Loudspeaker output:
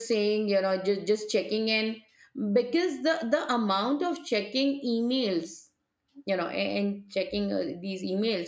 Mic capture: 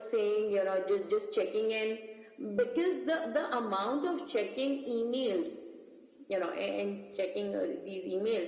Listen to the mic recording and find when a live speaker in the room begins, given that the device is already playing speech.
none

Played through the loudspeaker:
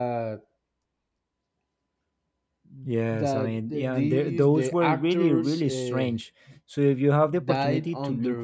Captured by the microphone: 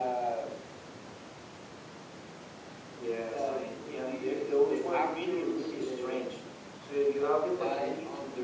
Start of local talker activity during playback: none

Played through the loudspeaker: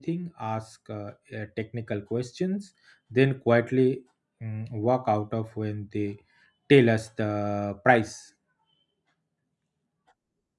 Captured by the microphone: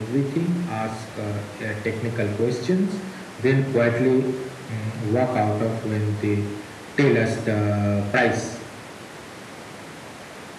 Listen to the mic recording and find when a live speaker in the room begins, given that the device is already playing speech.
none

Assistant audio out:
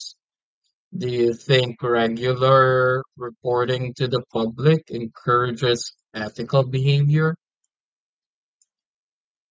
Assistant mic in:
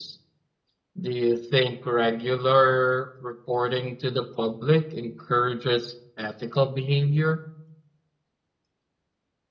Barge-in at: none

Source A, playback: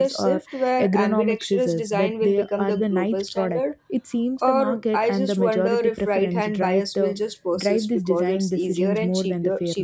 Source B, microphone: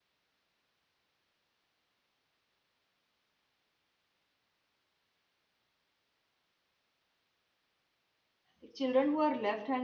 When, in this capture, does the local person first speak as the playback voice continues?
8.6 s

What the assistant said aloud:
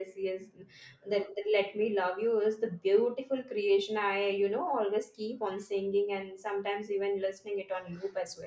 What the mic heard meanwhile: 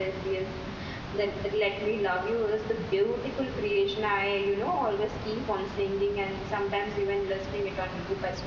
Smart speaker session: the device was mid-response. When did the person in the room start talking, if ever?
none

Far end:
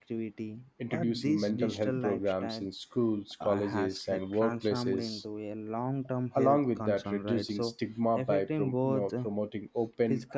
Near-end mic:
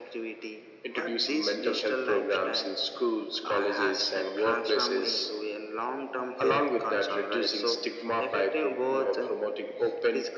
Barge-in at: none

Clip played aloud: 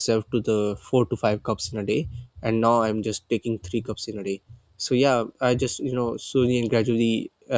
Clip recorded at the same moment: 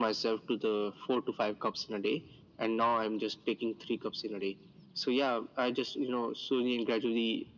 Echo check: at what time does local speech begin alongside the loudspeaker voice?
none

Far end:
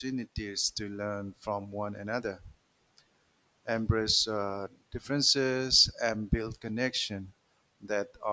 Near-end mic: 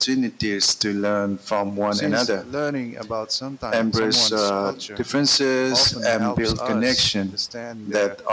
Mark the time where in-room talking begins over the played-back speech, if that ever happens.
1.9 s

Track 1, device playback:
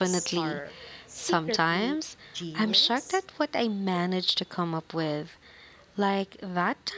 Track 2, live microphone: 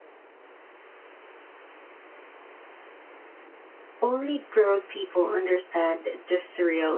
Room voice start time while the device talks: 4.0 s

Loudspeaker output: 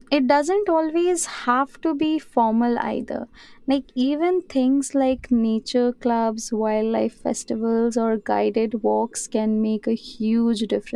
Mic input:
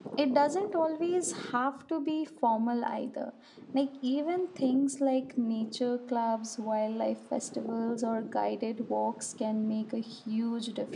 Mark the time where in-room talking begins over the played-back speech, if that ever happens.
none

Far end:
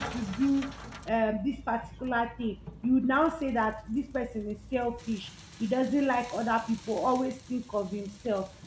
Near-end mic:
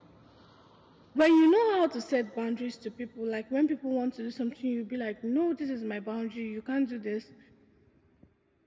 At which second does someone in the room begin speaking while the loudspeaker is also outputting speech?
1.1 s

